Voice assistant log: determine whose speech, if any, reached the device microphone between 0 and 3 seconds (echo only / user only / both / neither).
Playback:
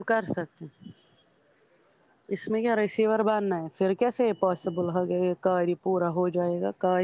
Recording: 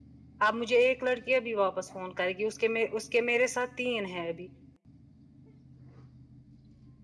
user only